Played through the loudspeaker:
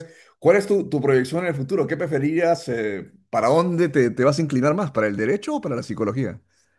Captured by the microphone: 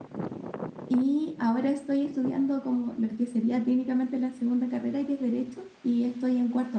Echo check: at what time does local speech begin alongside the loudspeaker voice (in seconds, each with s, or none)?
0.9 s